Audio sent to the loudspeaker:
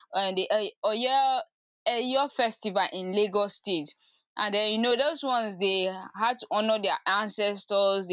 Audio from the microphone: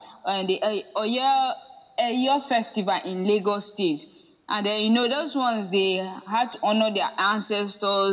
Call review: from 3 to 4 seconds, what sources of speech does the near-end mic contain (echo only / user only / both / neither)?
echo only